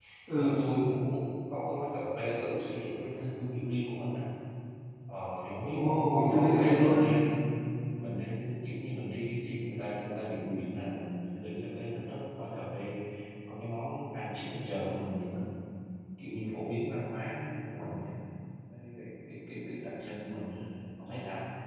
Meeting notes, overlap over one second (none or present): present